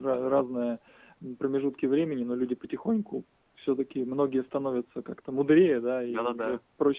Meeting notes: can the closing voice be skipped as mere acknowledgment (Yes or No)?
Yes